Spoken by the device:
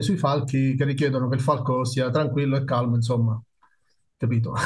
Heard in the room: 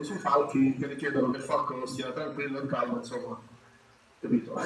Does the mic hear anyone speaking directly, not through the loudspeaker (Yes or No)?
No